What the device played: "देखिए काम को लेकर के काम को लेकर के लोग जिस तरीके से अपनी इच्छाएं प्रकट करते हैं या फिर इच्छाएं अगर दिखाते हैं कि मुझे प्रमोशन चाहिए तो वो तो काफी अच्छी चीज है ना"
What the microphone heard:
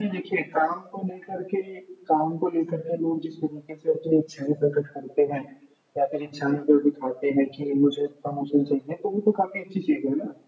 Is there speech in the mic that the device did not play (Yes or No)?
No